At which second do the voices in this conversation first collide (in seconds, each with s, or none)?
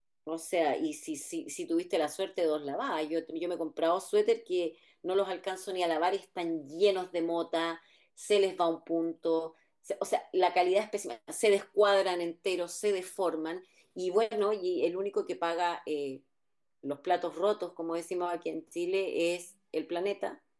none